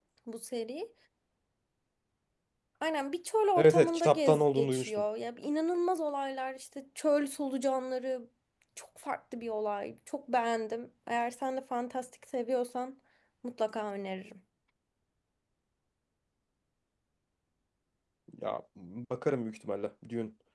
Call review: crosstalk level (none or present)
present